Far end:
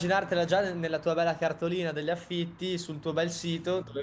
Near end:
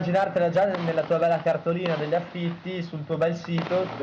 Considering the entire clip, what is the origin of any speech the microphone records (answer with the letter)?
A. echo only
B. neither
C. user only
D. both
A